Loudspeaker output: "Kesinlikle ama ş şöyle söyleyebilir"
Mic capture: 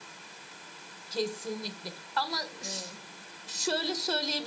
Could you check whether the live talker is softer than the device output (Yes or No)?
Yes